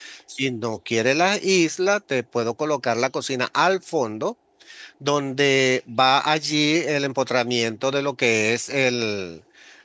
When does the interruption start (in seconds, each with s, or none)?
none